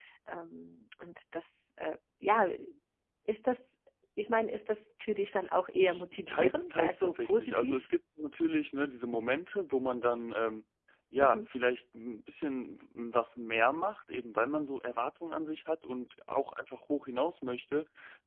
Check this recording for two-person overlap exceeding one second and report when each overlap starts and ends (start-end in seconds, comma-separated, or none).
5.7-7.9